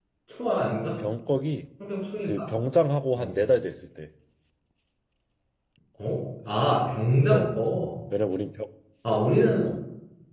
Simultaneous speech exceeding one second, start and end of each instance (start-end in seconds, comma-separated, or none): none